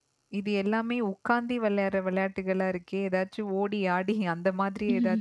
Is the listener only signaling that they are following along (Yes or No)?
Yes